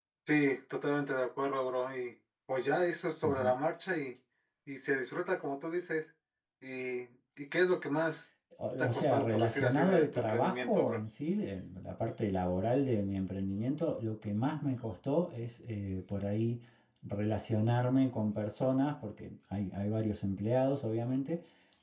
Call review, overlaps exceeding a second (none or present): present